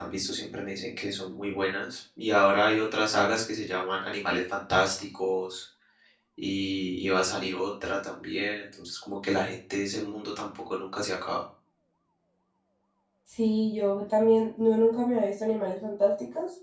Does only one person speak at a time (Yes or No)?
Yes